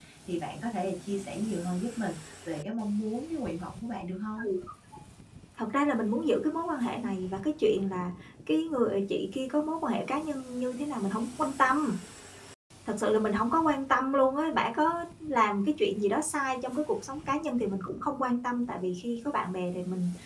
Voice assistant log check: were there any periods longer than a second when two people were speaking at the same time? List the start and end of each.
none

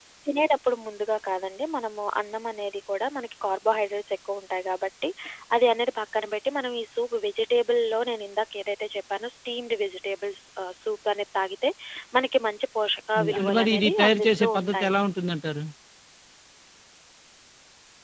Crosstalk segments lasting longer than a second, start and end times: 13.2-14.9

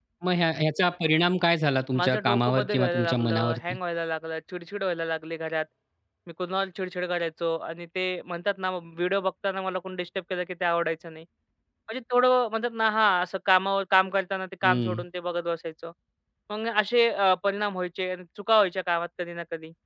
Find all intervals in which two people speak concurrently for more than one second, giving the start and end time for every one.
2.0-3.8

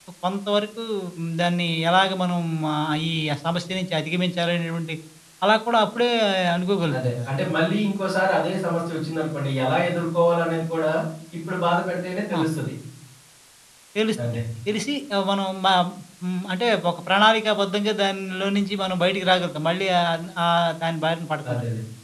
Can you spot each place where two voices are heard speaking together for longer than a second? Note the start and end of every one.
none

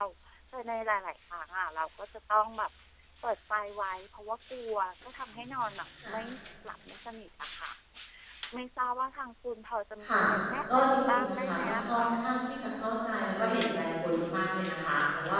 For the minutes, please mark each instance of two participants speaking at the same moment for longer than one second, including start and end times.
10.7-12.1

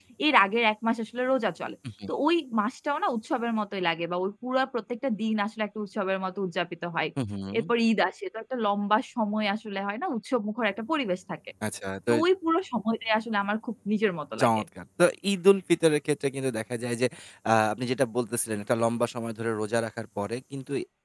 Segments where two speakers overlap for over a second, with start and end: none

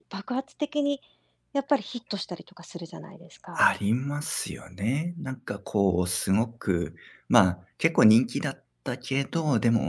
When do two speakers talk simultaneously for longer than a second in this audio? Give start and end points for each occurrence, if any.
none

